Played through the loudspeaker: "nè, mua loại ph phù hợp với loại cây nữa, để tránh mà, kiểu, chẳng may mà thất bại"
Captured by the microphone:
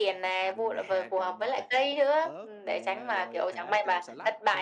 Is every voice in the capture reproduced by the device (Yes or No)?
No